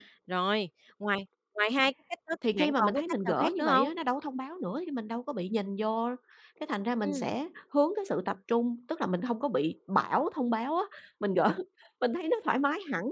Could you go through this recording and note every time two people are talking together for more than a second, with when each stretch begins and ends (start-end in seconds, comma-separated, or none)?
2.5-3.9